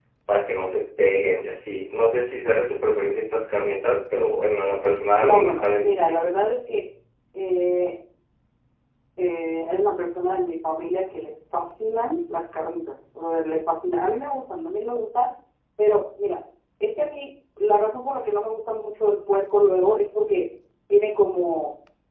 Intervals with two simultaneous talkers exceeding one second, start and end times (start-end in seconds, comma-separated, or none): 5.2-6.4